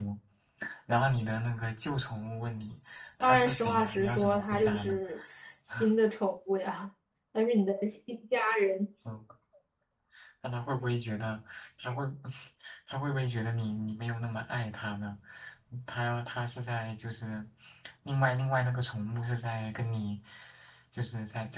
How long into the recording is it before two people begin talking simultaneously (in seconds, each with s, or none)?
3.2 s